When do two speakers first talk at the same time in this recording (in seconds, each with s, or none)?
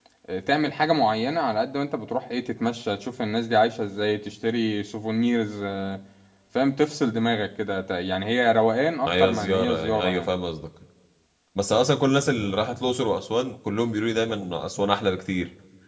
9.1 s